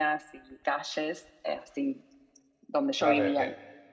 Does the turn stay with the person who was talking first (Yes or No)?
No